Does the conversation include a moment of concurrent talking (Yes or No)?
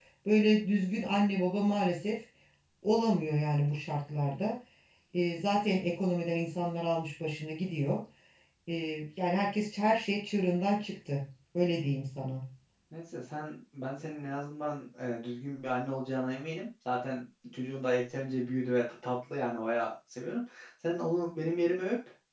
No